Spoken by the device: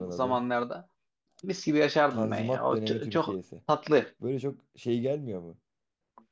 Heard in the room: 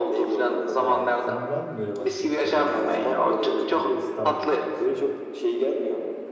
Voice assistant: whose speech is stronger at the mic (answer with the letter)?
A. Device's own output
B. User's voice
A